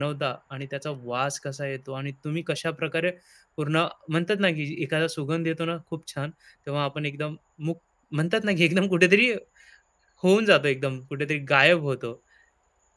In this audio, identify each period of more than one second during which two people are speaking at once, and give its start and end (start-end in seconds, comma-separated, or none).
none